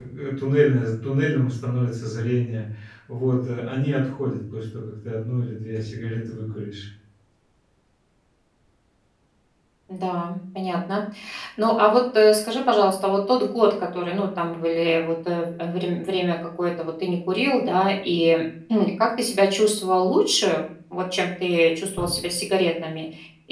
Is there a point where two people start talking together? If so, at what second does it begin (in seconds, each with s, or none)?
none